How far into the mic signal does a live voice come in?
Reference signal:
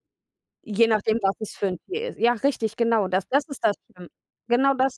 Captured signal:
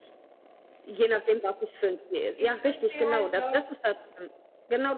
2 s

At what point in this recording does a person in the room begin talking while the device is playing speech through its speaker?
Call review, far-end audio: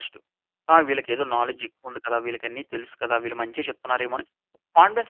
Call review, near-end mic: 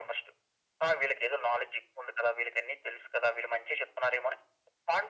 none

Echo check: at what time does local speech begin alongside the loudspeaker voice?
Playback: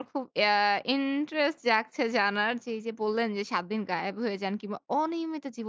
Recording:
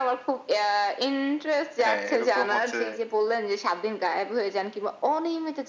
2 s

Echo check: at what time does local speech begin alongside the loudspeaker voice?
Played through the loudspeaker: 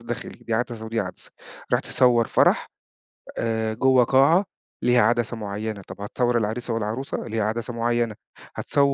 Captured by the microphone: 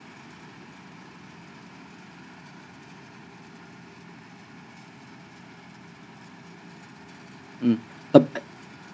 8 s

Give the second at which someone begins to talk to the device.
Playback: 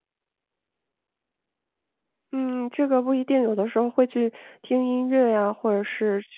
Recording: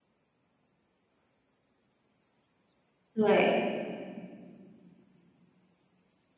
3 s

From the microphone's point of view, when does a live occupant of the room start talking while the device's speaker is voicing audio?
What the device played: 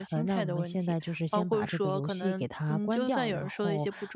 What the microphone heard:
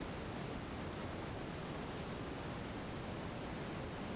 none

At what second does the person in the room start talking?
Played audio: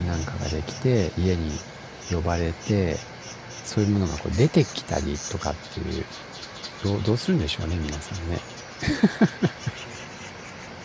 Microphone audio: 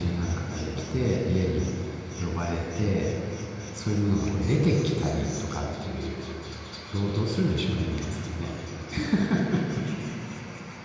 none

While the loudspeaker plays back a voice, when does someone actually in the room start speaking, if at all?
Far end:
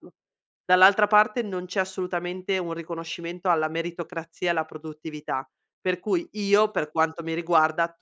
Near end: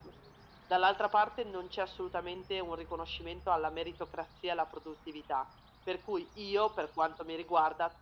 none

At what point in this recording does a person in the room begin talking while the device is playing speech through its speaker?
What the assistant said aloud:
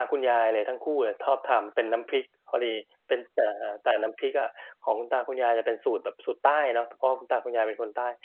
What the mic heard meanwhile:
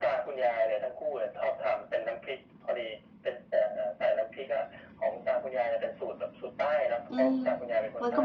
7 s

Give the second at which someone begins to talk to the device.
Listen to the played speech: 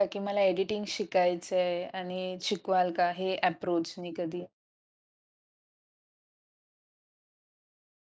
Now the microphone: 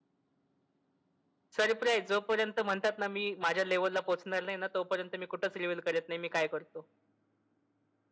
2 s

